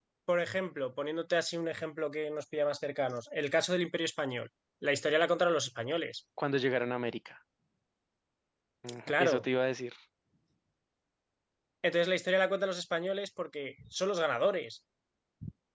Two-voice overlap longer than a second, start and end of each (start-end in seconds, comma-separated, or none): none